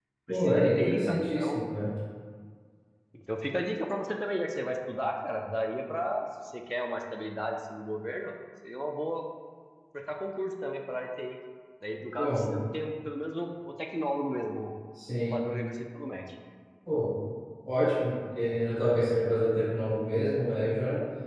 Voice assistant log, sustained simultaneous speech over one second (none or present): present